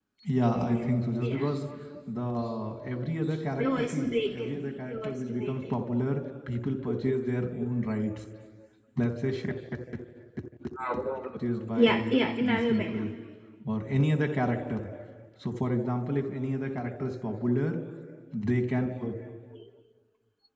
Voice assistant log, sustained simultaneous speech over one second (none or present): present